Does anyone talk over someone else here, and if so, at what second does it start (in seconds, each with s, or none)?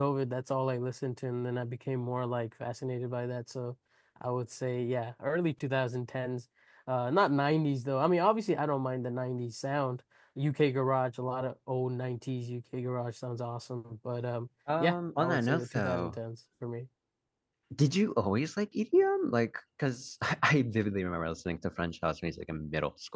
14.7 s